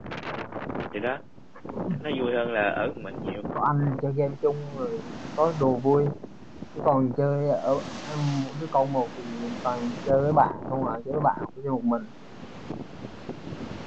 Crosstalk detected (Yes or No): No